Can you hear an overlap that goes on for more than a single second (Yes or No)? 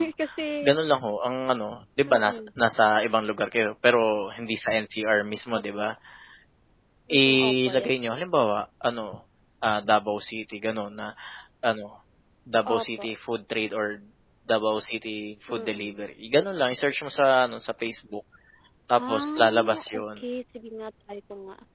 Yes